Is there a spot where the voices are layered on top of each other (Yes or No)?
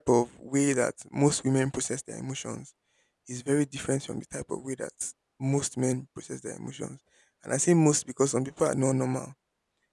No